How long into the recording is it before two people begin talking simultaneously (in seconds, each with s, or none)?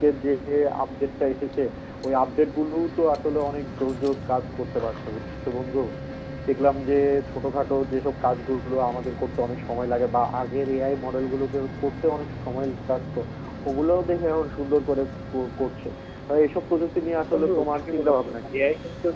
17.2 s